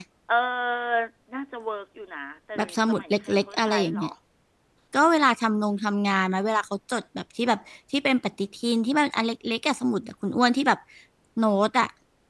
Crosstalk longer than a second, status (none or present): present